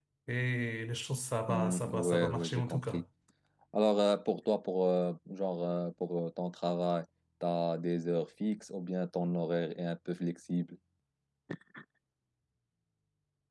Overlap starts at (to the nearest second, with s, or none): 1 s